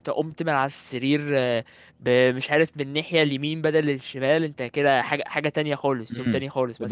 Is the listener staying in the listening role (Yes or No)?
No